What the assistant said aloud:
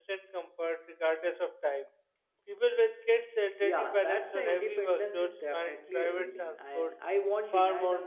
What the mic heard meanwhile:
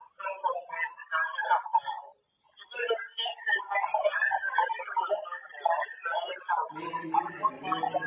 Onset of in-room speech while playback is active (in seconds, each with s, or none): 6.7 s